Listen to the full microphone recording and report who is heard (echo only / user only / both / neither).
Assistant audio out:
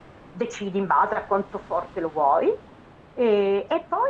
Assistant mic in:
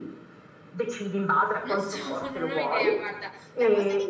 both